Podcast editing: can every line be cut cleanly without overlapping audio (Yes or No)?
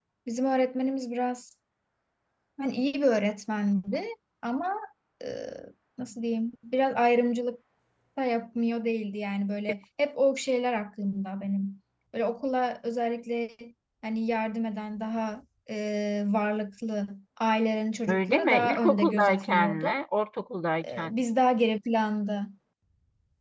No